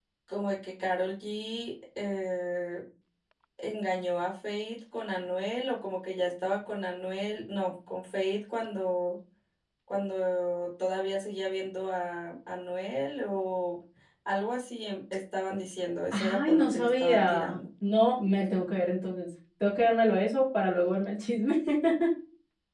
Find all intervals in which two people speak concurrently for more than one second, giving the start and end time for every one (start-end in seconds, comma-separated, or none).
16.1-17.6